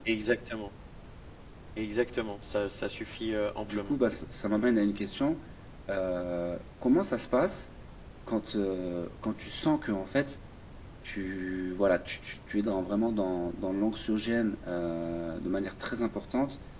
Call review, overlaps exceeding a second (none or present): none